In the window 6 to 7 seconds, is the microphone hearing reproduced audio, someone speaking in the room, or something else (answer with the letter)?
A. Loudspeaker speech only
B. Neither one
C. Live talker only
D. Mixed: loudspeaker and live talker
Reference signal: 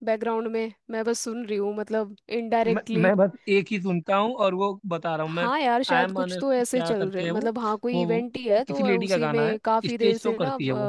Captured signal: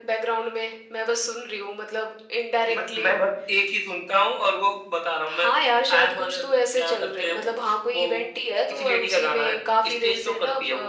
A